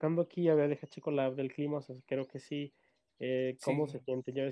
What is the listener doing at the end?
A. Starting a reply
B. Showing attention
B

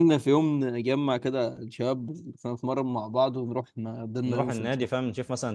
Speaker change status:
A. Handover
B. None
A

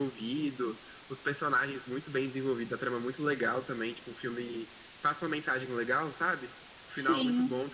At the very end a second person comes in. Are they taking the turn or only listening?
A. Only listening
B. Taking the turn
A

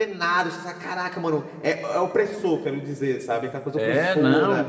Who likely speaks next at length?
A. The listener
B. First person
A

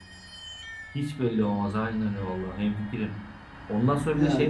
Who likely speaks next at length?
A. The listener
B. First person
B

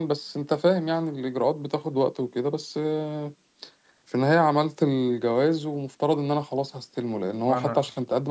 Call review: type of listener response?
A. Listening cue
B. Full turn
A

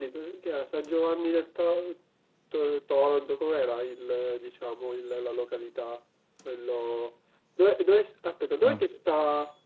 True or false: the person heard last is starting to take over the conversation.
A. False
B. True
A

